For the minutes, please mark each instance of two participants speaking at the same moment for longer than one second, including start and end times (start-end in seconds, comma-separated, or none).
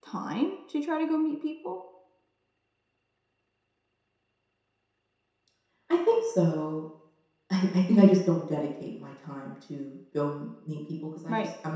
none